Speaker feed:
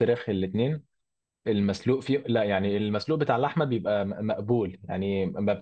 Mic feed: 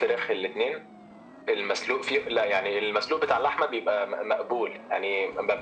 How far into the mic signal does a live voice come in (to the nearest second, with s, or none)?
none